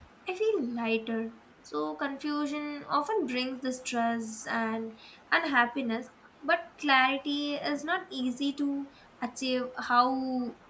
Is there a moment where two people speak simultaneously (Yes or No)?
No